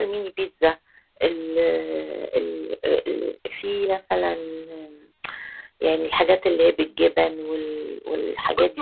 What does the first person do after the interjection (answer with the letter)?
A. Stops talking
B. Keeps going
A